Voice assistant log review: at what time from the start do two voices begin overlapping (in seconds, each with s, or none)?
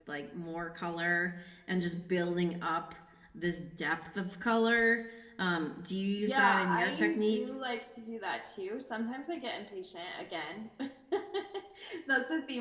6.2 s